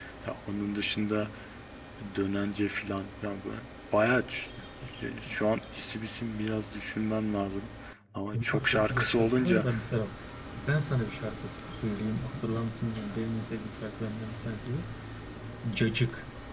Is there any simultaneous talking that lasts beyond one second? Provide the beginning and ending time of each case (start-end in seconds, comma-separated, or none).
8.3-9.7